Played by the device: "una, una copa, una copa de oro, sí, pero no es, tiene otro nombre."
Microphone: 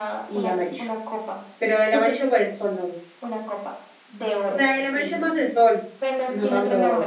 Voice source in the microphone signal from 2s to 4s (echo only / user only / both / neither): both